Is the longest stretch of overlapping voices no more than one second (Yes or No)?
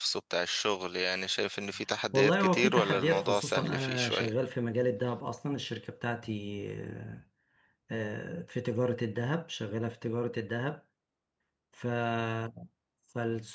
No